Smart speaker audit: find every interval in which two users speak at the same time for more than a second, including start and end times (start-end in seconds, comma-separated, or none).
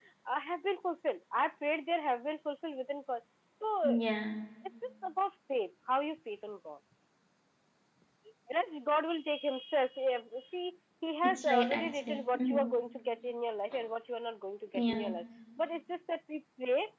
11.2-12.7